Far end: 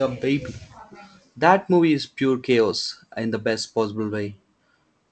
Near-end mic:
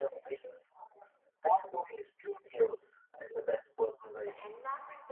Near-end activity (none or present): present